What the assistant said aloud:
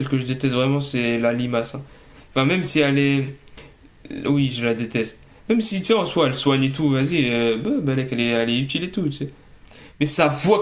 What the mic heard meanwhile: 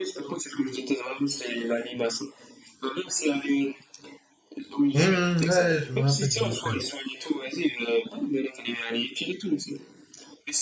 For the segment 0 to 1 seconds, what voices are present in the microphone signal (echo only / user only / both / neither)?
echo only